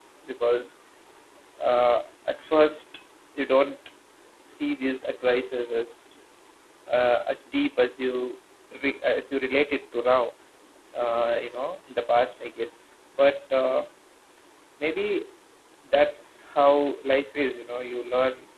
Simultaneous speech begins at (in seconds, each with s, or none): none